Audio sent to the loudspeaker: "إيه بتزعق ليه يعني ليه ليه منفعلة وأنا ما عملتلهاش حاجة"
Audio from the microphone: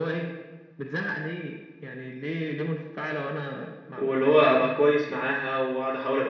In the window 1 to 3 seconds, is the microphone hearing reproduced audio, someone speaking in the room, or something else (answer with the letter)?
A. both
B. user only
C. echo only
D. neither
C